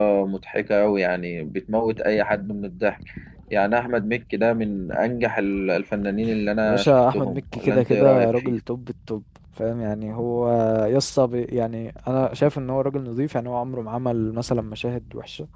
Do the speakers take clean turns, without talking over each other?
No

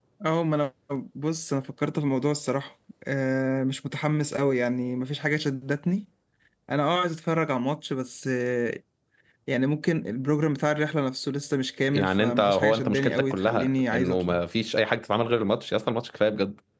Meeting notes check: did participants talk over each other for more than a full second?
Yes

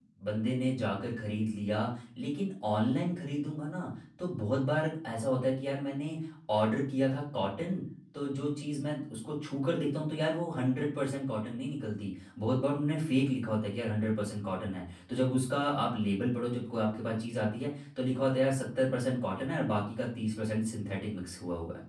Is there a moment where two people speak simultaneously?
No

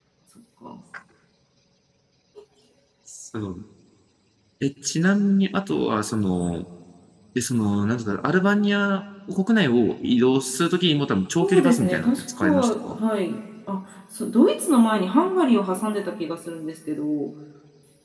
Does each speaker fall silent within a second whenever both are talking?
No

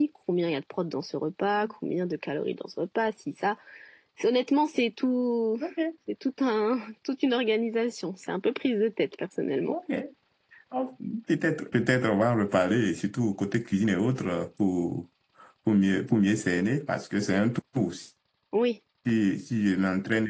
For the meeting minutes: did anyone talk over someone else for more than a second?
No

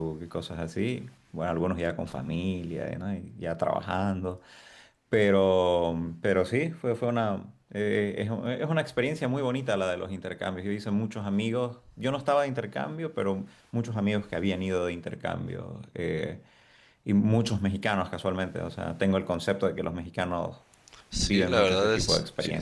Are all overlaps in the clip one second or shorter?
No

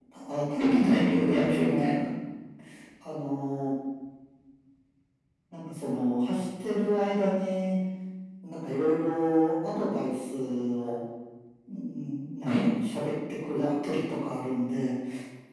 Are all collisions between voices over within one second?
No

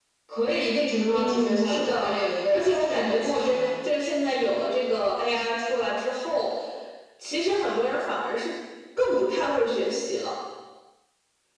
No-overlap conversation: No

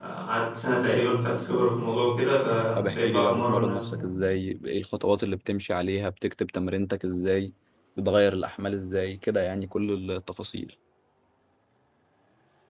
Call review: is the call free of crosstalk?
No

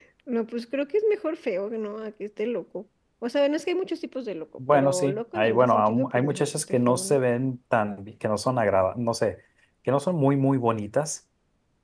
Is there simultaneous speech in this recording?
Yes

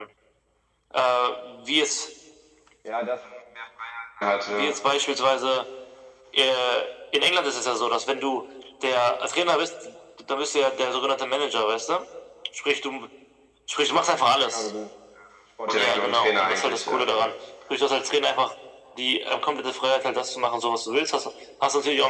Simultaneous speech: Yes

